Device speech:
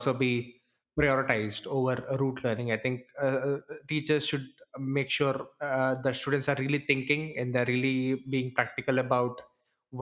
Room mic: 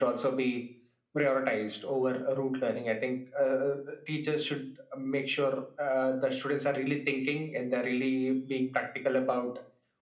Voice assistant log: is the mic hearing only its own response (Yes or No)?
Yes